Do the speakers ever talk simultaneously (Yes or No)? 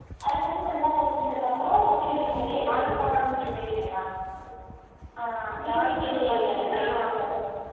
Yes